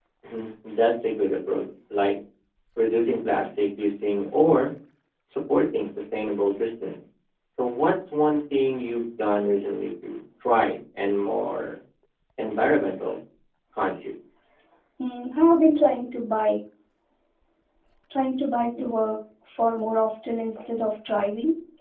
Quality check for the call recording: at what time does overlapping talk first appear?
none

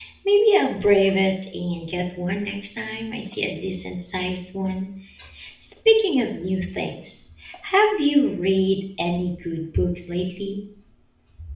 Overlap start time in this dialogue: none

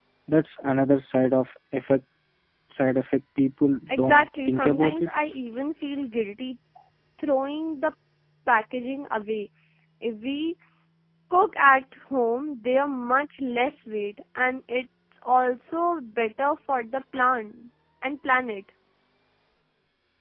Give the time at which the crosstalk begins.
4 s

